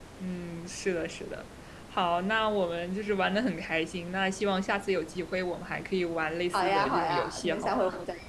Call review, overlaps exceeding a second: present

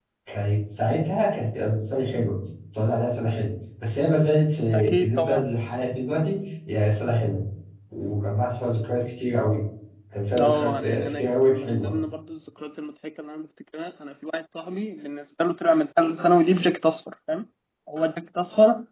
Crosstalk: present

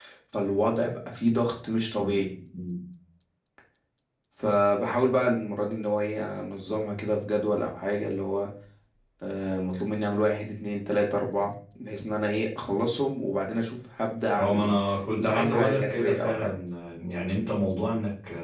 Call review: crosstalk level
present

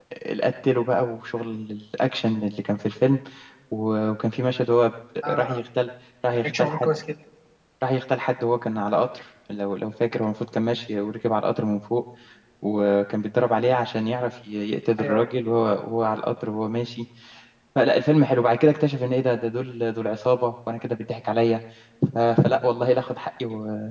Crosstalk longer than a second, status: none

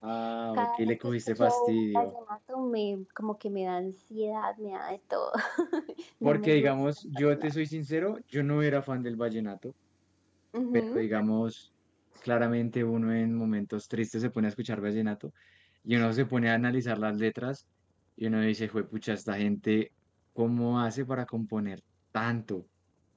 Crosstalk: present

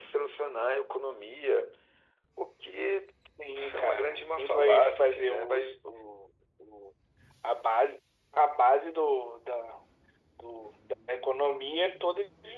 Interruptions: present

